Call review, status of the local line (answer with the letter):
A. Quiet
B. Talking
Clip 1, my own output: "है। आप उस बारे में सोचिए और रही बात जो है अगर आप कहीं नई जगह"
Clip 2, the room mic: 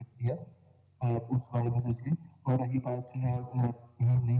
A